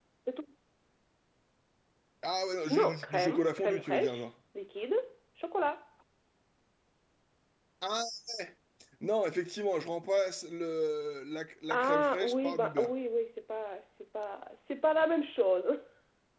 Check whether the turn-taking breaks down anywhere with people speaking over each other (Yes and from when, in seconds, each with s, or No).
Yes, from 2.7 s